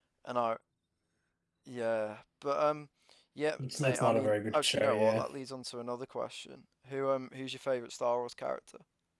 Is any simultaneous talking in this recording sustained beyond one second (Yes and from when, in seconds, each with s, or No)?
Yes, from 3.6 s